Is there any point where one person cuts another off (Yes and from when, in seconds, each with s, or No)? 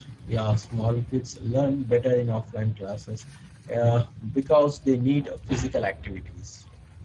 No